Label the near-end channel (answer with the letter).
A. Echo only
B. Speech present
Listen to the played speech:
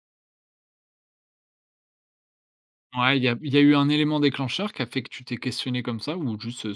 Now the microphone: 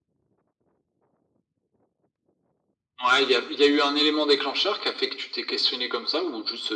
A